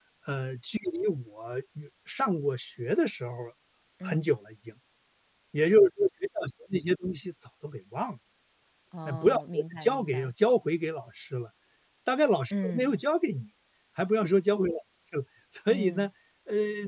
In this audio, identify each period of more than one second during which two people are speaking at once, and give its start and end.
9.0-10.3

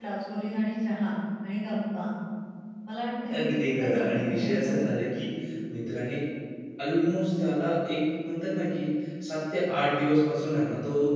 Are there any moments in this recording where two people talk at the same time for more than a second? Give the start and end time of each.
3.3-4.8

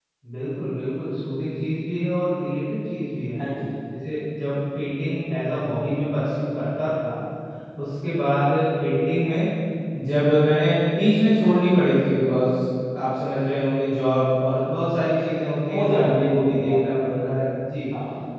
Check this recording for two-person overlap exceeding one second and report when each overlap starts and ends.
15.7-17.3

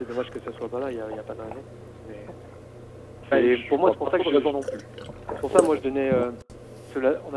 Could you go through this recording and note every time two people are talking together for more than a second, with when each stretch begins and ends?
3.3-4.5

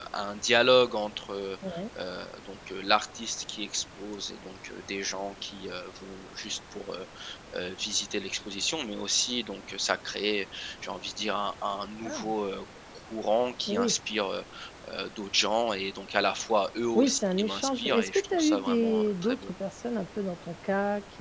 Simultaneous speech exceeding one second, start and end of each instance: 16.9-19.5

